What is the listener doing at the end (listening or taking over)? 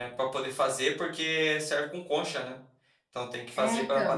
listening